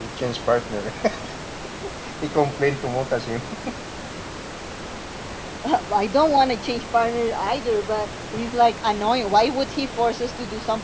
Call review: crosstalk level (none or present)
none